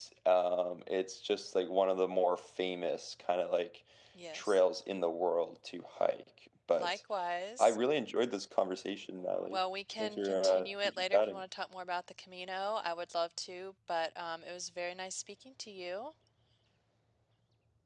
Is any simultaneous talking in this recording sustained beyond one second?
Yes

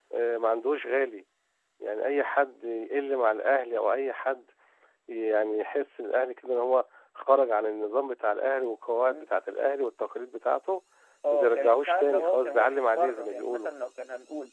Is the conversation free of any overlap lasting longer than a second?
No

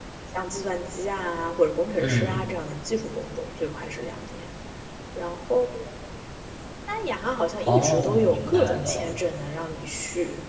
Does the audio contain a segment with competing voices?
Yes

